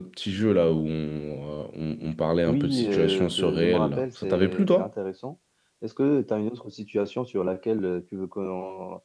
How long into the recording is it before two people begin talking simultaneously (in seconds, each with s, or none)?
2.5 s